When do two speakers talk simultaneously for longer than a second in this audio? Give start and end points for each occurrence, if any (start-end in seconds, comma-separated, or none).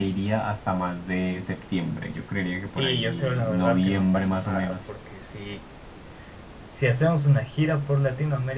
2.8-4.8